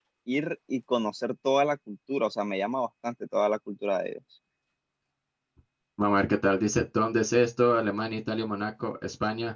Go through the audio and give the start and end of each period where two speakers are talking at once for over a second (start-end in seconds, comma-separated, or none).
none